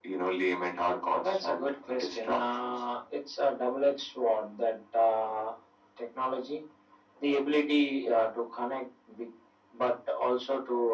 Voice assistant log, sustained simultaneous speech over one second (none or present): present